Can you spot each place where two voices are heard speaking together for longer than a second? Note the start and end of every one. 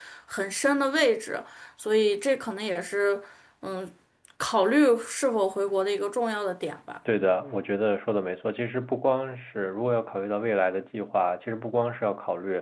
none

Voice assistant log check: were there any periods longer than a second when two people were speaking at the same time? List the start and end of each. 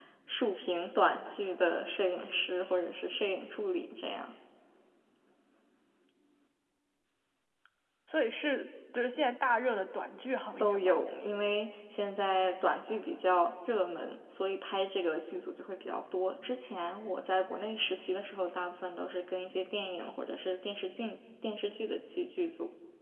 none

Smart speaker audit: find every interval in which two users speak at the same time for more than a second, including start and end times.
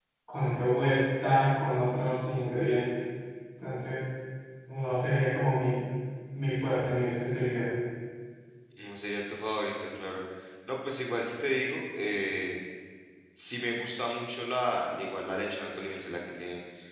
none

